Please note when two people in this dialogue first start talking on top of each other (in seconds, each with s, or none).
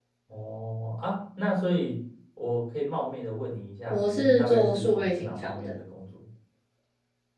3.9 s